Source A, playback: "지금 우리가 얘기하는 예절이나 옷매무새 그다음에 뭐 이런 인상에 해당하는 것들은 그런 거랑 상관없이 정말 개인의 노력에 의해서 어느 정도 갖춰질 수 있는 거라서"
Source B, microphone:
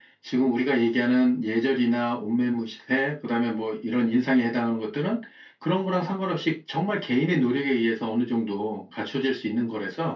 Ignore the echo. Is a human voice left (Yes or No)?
No